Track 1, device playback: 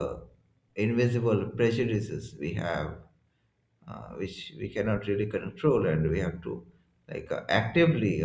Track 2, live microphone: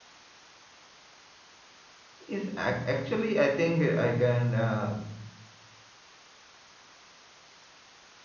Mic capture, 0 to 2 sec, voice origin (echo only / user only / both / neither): neither